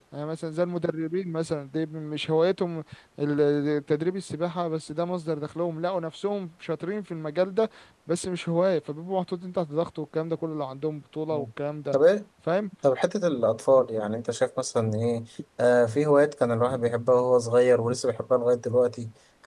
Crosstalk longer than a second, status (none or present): none